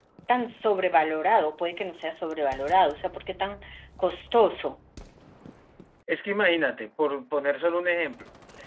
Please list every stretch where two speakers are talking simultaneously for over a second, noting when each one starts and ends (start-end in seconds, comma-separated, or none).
none